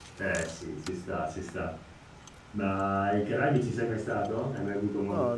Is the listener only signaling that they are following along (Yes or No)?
No